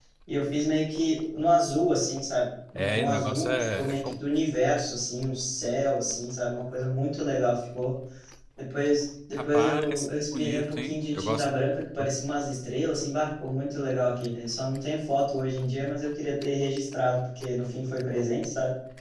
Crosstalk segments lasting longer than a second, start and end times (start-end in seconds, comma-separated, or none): 2.8-4.2, 9.4-11.5